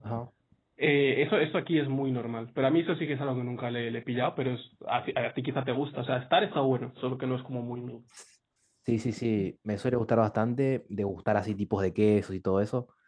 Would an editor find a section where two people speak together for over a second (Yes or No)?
No